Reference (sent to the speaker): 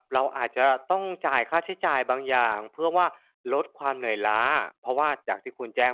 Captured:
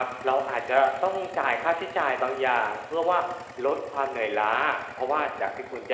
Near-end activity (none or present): none